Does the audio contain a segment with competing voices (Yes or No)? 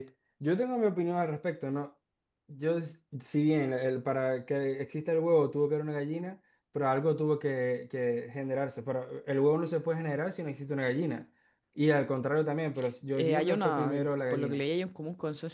Yes